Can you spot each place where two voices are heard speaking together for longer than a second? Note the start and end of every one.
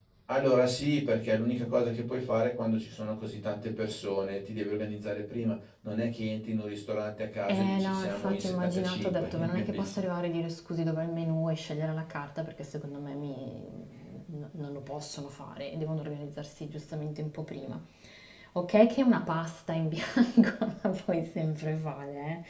7.5-10.0

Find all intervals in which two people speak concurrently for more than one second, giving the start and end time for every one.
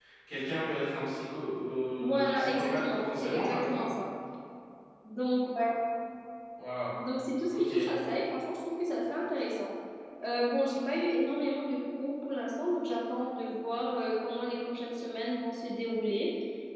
2.0-3.8

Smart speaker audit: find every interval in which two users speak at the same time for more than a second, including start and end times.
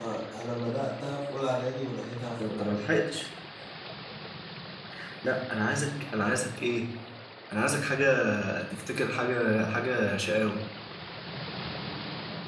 none

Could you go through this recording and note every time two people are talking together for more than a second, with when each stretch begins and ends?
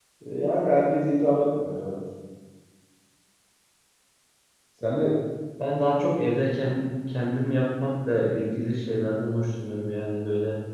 none

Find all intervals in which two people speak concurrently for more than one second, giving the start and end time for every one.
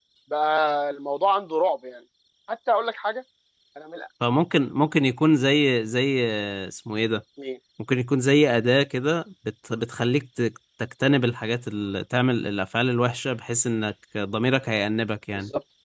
none

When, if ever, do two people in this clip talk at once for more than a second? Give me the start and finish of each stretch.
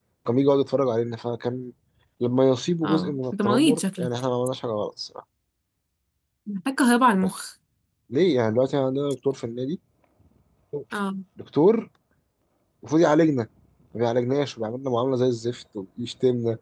2.8-4.1

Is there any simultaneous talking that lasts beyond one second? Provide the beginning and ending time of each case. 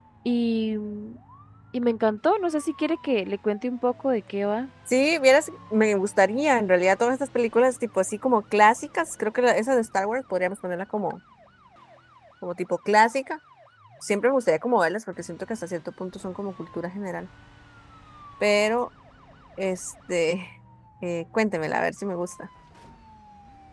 none

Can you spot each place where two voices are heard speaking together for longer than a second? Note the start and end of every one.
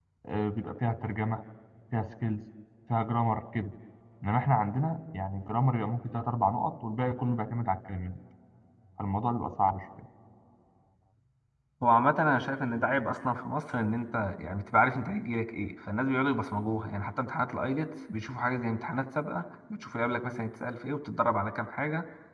none

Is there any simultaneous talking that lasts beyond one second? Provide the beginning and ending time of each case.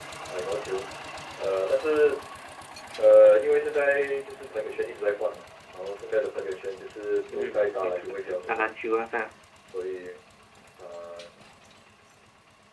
7.3-8.7

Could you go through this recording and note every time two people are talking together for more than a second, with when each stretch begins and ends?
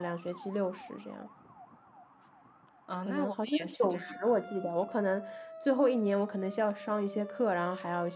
3.0-4.4

